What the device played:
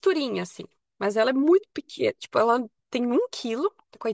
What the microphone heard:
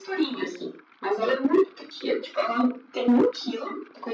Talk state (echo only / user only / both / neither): echo only